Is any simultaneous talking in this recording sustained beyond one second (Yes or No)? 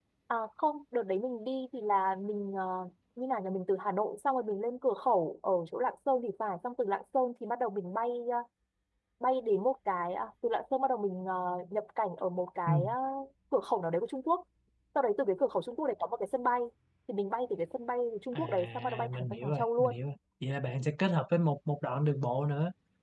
Yes